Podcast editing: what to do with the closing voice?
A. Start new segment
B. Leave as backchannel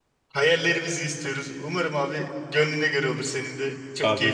A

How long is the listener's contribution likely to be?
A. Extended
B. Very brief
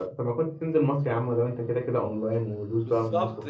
A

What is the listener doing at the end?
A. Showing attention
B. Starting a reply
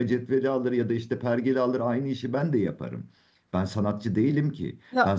A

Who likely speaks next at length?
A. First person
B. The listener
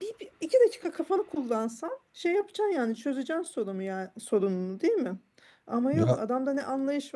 A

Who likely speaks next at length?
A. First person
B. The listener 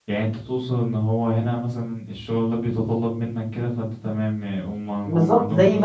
B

